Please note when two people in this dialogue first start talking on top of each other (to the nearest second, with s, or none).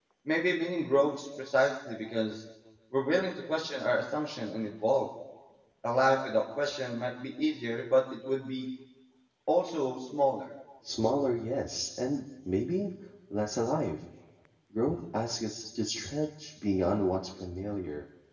none